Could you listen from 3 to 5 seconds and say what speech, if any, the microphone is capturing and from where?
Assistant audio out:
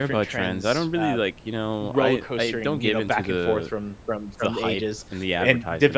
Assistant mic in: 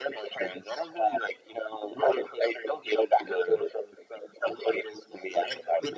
echo only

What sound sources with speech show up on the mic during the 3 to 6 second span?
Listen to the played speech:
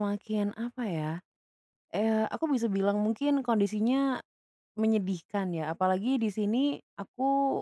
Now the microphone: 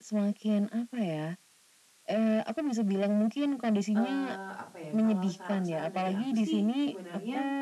both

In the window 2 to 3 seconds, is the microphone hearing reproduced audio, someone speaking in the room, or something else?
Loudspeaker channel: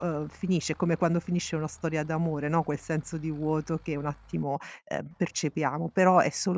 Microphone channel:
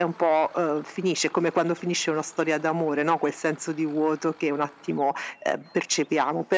echo only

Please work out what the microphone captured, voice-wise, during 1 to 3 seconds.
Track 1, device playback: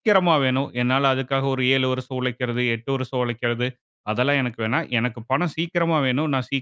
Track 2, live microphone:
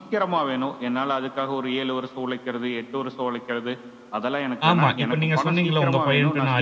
echo only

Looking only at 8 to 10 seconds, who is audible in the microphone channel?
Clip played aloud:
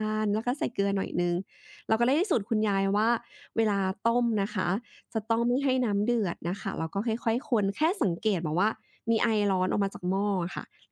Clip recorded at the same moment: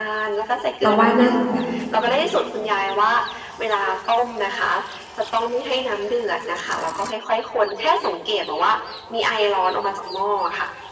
echo only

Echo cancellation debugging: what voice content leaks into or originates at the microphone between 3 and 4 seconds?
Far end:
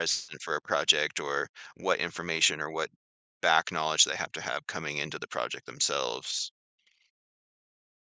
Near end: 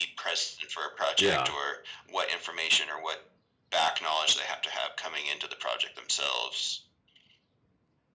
echo only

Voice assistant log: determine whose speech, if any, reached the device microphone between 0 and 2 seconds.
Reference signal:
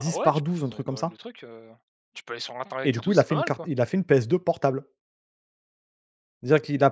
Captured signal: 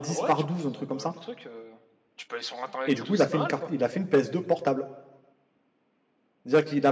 echo only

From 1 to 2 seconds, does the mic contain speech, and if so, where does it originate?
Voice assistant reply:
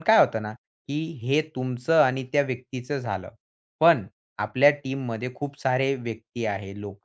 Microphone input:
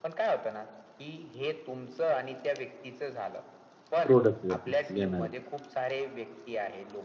echo only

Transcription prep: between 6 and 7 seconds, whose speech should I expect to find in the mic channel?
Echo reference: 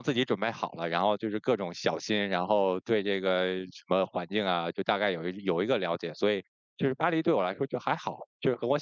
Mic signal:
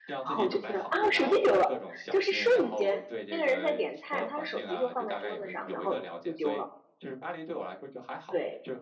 both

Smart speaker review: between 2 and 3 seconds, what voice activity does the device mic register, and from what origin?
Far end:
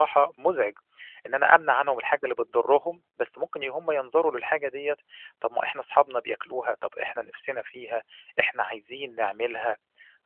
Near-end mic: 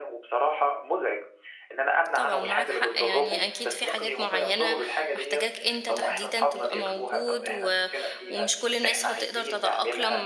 both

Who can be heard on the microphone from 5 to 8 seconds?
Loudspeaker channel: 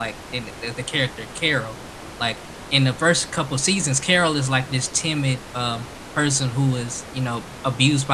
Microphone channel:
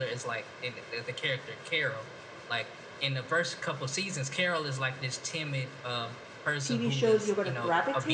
both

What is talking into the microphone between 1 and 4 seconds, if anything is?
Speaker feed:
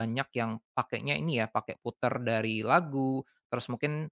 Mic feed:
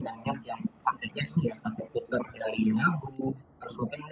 echo only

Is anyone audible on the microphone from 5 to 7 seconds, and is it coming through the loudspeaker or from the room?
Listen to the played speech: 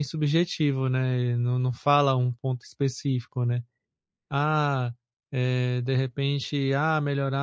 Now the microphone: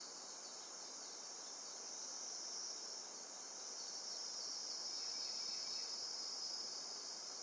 neither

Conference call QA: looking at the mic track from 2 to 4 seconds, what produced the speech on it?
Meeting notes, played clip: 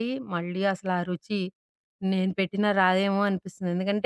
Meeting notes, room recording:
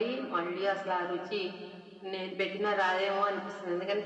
echo only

